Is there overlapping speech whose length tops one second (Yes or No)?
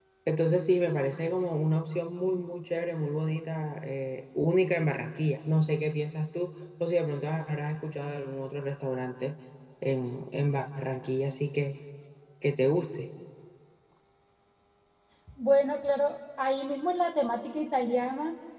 No